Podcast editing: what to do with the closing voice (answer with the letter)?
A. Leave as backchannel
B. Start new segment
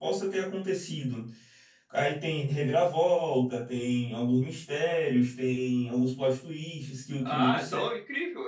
B